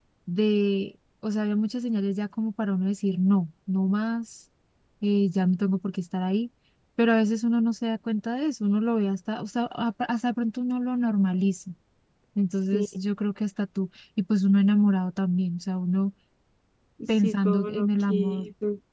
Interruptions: present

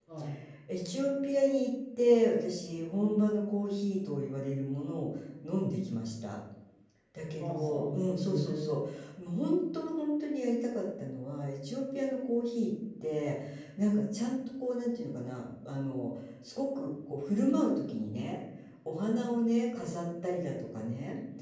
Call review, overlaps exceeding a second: present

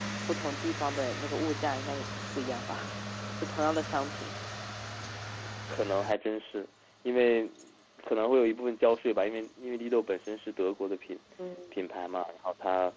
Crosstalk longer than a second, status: none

